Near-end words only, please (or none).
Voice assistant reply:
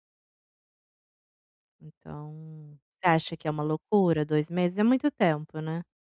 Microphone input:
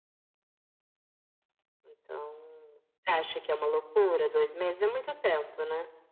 none